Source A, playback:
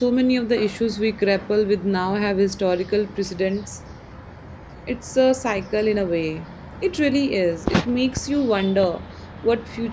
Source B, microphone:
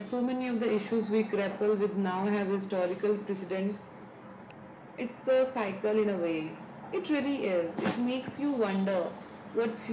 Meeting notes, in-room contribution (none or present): none